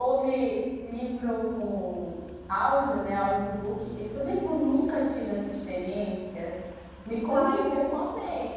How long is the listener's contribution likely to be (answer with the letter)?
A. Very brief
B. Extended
B